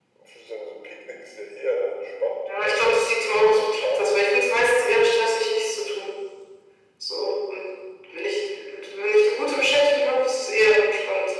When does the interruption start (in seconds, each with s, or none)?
2.4 s